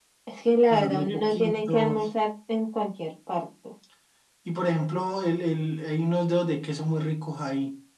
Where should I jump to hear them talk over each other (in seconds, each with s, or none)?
0.7 s